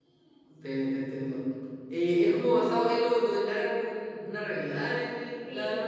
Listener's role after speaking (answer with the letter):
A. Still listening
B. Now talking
B